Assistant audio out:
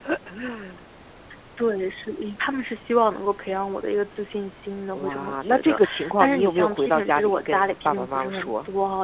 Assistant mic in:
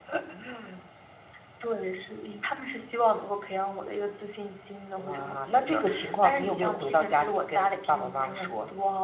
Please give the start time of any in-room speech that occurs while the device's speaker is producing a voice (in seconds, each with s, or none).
none